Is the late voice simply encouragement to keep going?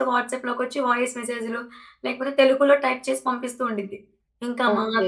Yes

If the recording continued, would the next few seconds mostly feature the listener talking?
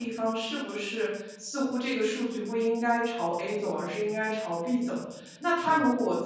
No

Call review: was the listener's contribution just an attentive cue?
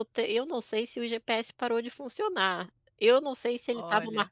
Yes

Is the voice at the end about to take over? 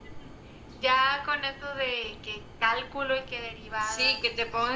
Yes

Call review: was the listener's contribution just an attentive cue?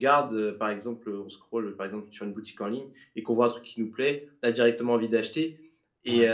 Yes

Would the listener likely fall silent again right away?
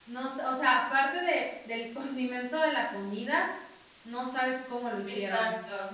No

